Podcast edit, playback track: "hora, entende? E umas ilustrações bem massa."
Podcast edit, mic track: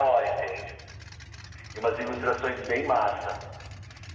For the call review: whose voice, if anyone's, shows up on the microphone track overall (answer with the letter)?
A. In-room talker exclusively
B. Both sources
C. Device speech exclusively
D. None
C